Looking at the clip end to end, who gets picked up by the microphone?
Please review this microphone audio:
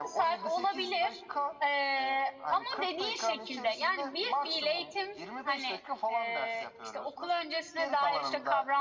echo only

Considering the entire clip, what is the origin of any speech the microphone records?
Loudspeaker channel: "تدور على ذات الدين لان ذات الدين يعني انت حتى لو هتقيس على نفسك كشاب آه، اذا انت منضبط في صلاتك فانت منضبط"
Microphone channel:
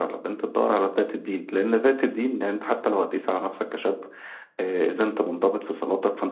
echo only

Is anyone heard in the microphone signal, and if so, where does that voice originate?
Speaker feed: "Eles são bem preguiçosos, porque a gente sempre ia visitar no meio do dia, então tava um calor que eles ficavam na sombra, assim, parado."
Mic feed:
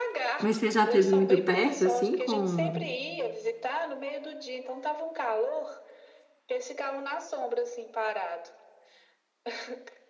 both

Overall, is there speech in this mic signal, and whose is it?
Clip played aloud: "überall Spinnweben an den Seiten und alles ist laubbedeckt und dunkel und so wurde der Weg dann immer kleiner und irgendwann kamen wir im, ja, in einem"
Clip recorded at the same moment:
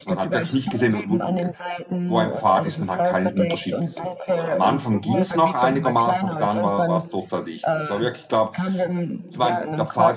both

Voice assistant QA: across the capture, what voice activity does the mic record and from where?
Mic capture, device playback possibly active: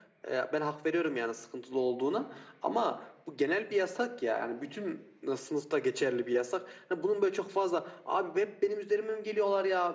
echo only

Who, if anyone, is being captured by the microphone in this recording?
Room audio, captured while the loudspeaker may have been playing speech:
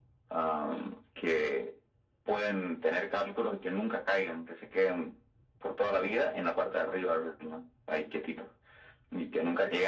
echo only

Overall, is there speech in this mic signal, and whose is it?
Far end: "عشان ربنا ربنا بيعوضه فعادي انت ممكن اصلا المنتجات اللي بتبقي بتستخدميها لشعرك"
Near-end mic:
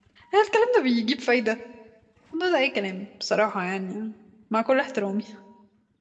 user only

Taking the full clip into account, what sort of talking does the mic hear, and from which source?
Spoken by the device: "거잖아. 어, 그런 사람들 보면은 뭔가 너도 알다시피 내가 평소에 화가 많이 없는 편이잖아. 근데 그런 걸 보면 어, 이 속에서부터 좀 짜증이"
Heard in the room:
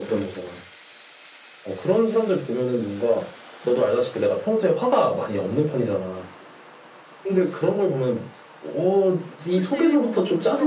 both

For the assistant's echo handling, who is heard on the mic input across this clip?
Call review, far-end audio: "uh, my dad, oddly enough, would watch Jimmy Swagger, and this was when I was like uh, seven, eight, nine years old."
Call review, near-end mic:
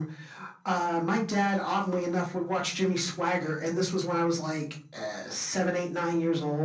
echo only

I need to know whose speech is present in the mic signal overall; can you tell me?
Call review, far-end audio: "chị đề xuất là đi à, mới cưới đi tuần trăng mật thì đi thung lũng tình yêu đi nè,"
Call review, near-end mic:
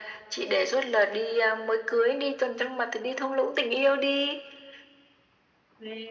echo only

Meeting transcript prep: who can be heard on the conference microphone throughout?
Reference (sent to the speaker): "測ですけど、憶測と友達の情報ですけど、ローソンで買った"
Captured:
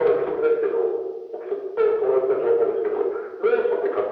echo only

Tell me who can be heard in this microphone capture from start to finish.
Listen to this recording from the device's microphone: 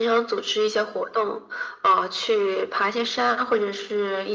echo only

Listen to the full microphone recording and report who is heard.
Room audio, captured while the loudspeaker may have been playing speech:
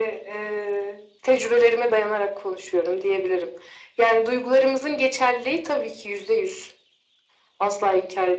echo only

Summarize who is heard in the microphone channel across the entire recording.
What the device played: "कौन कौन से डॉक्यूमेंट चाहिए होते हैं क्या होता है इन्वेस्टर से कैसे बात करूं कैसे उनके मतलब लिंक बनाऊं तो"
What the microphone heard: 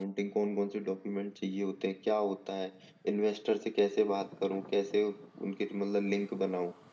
echo only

